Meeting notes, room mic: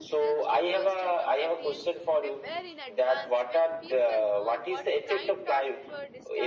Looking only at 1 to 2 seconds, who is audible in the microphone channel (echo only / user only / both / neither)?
both